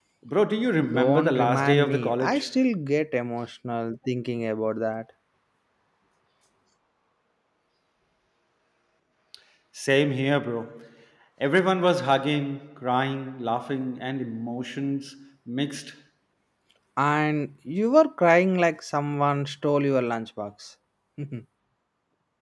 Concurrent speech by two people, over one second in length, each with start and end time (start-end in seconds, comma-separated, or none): 0.9-2.5